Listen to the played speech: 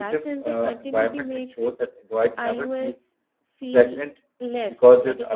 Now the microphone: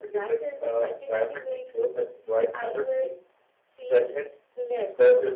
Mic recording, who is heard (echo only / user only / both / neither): echo only